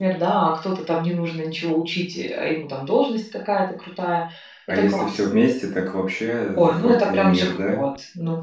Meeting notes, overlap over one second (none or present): present